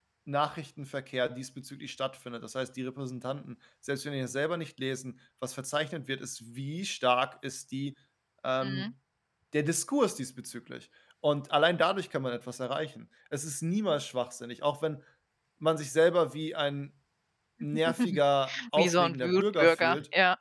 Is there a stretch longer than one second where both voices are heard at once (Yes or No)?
Yes